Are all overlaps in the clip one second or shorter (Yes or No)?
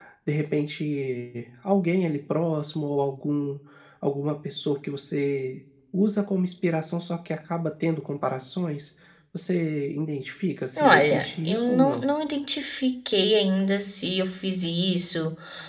No